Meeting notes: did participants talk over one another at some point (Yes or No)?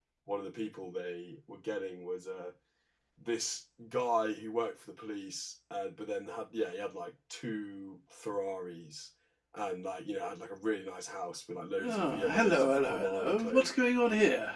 Yes